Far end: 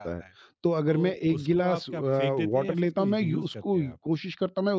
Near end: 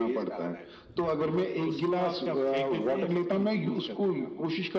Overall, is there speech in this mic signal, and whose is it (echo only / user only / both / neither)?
echo only